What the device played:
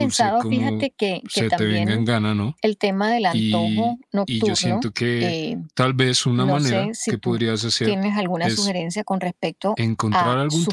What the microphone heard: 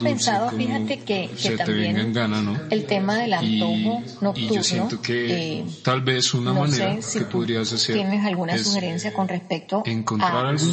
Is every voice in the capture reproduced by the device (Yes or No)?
No